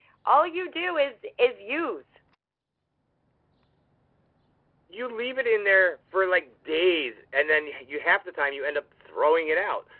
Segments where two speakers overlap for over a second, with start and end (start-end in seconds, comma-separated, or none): none